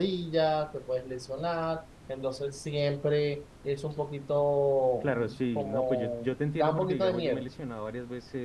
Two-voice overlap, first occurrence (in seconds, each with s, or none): 5.0 s